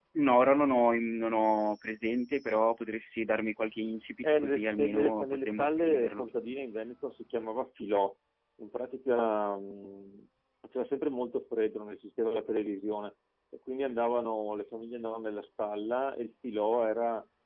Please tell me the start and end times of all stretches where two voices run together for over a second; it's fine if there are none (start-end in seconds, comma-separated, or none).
4.2-6.2